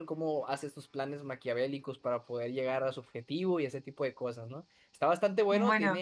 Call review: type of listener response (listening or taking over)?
listening